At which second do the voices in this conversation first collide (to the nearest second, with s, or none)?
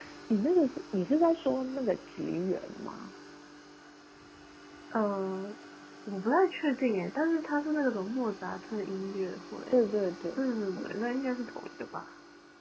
none